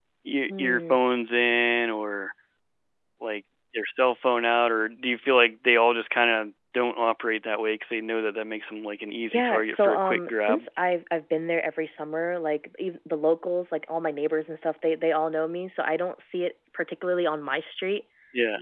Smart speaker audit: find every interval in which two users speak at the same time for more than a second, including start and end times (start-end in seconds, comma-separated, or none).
9.2-10.6